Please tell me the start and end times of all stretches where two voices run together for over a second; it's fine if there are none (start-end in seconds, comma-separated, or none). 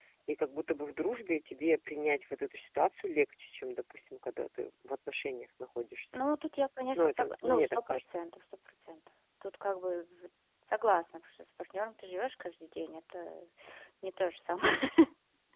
7.0-8.2